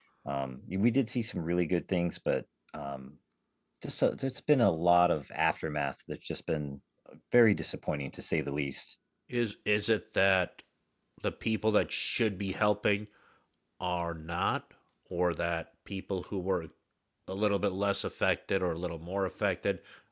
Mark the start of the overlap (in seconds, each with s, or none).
none